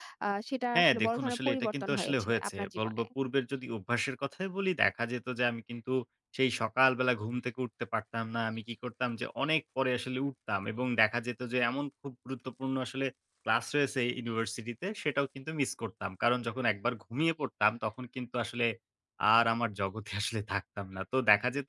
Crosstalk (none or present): present